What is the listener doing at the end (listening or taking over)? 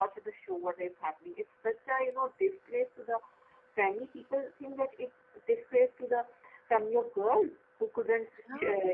listening